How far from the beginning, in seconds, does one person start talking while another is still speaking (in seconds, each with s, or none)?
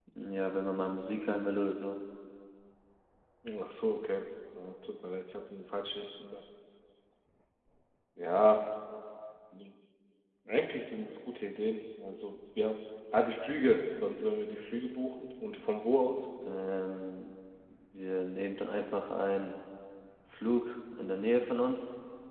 none